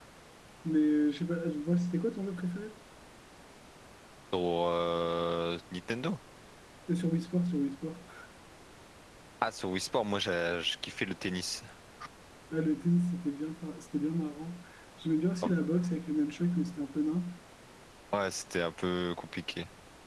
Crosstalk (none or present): none